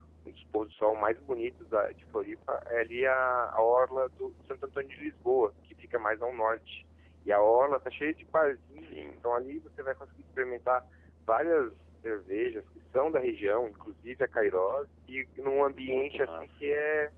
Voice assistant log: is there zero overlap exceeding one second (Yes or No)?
No